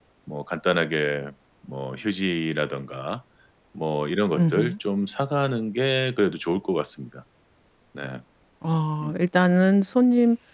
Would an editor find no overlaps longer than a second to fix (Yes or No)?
Yes